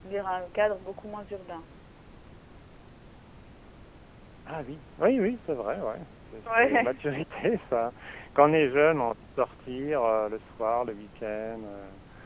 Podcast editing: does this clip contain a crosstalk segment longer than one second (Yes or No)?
No